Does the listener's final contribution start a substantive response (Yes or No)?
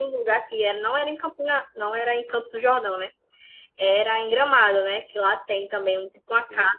No